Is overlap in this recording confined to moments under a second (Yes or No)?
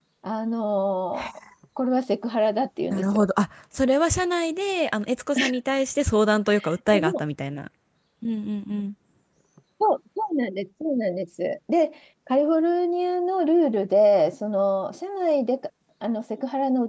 Yes